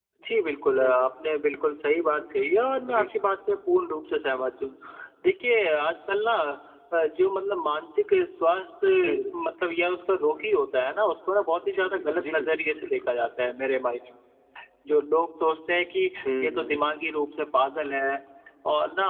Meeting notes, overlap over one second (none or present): present